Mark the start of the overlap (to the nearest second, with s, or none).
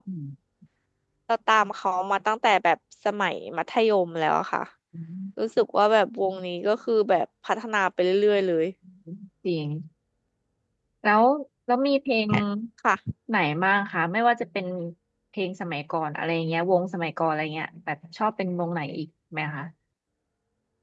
none